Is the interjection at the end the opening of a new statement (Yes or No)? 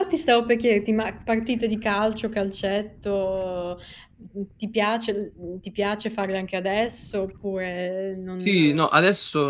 Yes